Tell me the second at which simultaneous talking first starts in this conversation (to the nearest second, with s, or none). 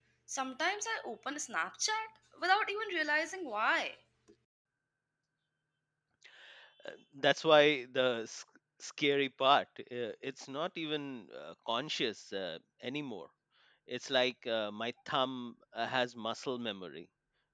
none